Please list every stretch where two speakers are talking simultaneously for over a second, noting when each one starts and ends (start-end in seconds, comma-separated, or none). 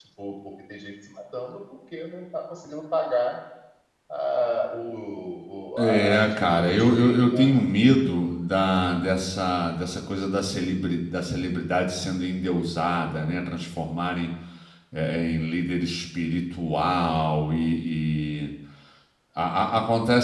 5.8-7.5